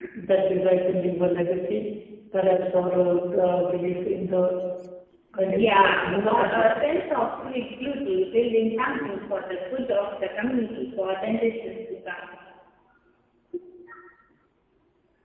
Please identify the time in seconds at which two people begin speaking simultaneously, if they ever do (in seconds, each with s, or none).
5.5 s